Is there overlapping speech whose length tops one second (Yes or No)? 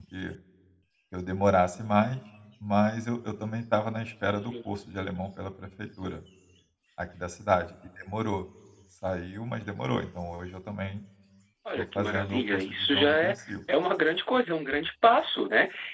Yes